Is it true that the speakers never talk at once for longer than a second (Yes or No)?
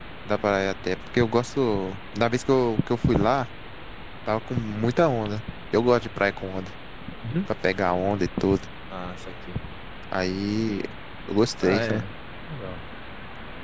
Yes